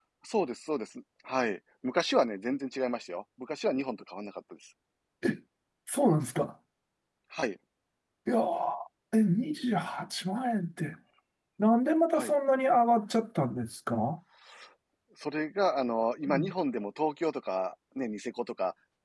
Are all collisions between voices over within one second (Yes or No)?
Yes